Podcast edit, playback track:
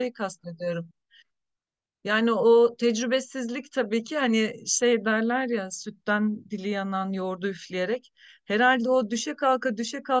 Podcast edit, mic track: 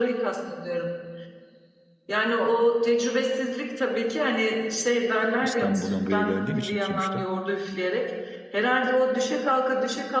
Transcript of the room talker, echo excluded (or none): İstanbul'dan buraya geldiğim için sonuçta.